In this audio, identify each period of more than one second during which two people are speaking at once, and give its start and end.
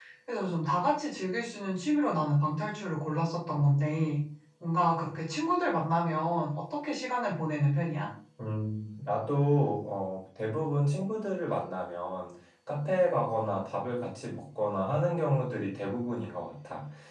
none

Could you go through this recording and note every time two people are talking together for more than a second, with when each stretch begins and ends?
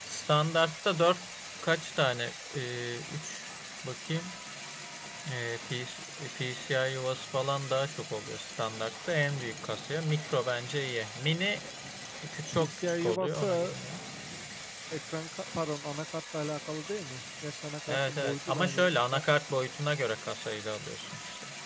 12.5-13.8, 17.9-19.2

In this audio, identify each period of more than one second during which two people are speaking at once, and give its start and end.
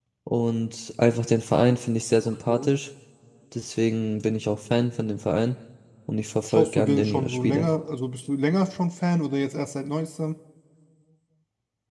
6.5-7.7

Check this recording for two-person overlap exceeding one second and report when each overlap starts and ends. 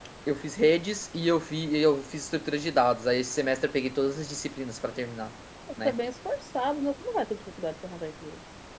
none

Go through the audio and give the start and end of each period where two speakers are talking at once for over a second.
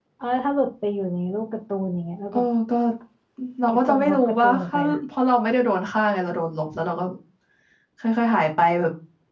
3.7-5.0

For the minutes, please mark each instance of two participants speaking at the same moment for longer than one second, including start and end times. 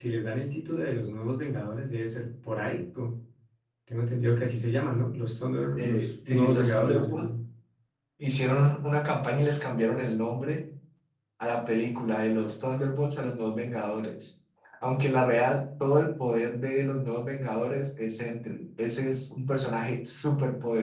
5.8-7.3

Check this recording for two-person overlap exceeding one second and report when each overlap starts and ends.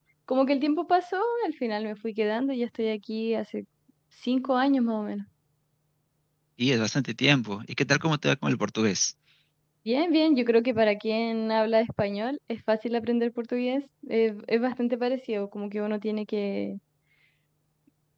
none

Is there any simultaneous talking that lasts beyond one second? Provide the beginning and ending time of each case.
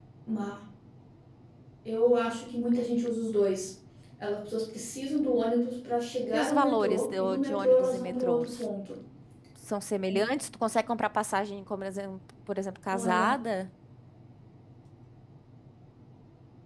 6.3-8.6

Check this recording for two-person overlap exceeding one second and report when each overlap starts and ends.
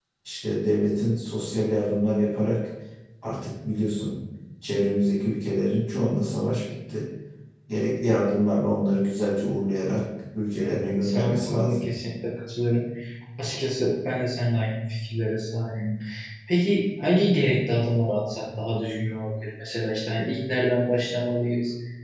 10.6-11.9

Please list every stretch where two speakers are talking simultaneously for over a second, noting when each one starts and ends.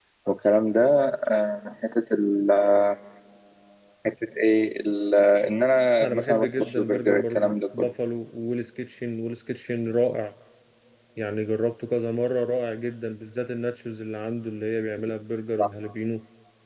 6.0-7.9

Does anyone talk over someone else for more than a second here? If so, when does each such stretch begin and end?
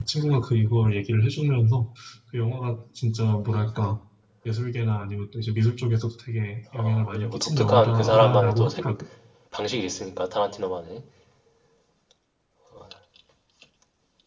6.8-8.8

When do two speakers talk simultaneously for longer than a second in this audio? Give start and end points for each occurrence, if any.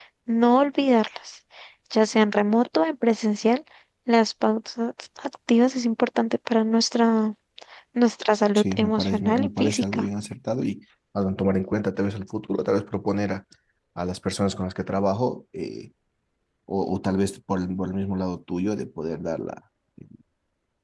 8.6-10.0

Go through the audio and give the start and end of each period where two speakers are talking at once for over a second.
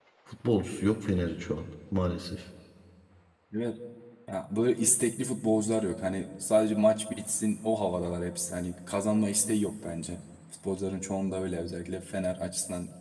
none

